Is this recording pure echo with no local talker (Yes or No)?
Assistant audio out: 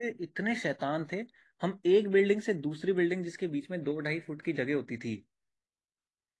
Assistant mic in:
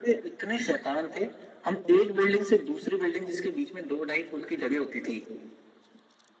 Yes